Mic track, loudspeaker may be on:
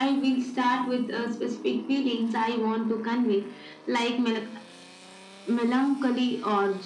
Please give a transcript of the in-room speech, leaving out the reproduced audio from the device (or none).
none